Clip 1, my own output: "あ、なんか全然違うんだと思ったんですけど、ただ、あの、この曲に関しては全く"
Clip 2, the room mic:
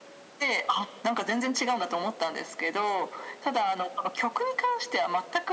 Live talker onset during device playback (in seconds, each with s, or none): none